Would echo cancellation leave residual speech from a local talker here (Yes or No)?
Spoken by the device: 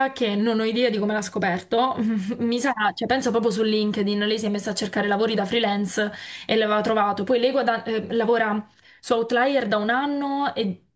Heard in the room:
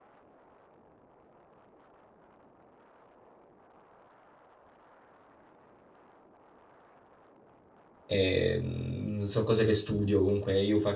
Yes